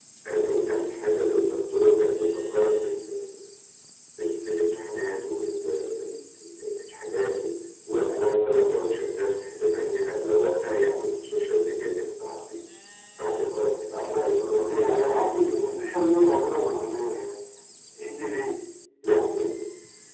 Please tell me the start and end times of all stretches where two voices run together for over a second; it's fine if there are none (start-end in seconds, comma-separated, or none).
14.1-15.8